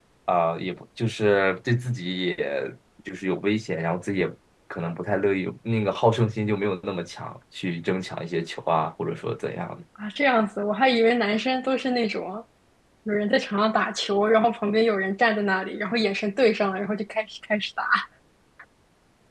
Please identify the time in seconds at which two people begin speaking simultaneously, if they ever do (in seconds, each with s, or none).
none